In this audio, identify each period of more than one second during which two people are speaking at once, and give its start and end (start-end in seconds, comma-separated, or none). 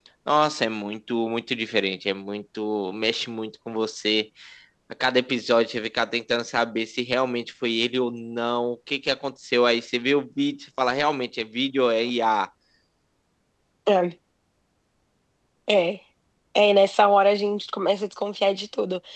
none